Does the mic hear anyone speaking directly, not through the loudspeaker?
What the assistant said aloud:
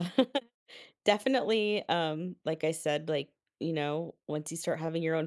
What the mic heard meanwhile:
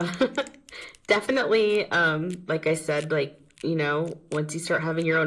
No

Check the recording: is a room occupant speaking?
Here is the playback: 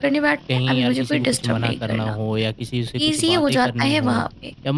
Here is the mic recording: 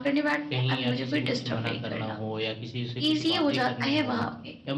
No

